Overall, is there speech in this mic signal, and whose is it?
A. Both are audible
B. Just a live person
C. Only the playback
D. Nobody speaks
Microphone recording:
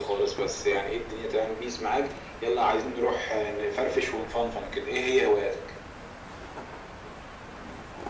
C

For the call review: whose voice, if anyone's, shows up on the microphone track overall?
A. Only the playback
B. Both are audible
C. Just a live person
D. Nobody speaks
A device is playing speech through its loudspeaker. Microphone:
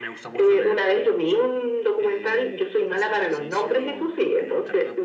B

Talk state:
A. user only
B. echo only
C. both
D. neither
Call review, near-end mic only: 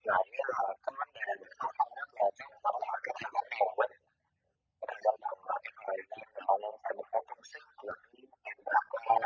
B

